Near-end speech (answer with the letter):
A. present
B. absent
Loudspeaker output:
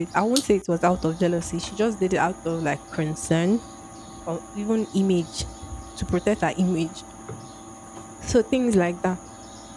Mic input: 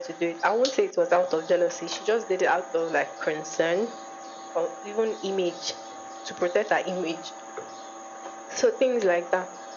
B